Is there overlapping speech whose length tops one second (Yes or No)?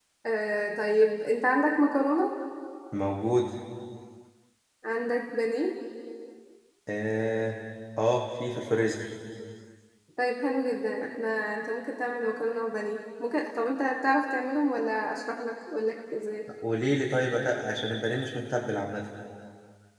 No